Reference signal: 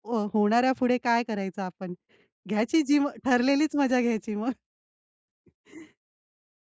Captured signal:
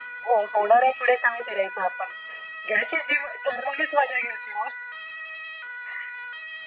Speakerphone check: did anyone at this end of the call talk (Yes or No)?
No